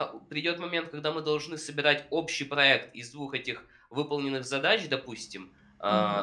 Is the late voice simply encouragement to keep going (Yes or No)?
Yes